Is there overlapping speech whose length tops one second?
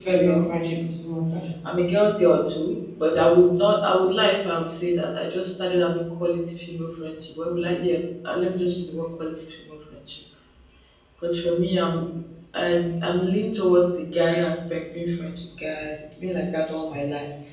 No

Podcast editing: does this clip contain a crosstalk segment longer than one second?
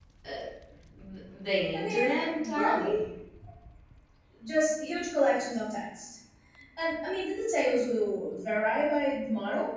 Yes, from 1.7 s

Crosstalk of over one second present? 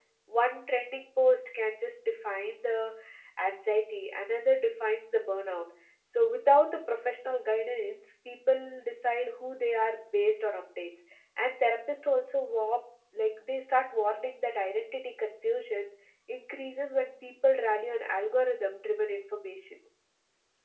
No

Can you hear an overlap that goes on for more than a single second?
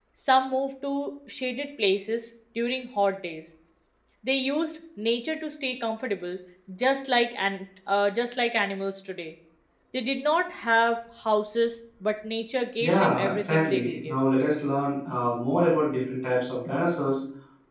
Yes, from 12.8 s

